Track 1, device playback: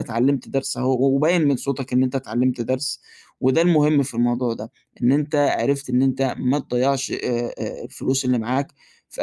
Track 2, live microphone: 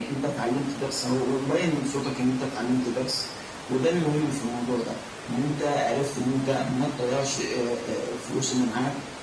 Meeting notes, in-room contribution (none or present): none